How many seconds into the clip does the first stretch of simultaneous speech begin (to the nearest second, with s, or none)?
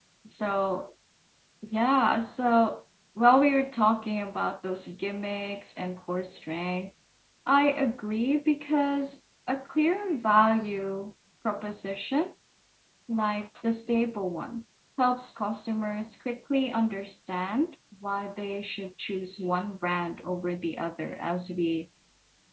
none